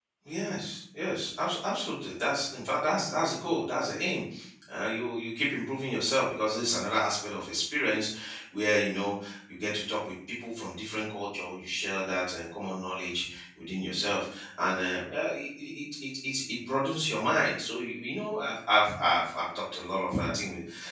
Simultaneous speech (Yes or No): No